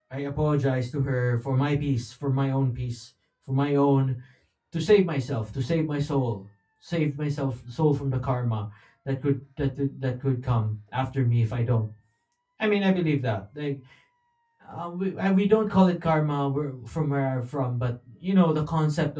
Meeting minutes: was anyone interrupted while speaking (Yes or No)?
No